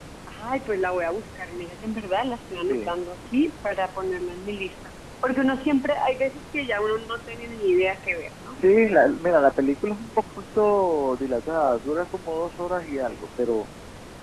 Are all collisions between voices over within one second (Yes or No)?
Yes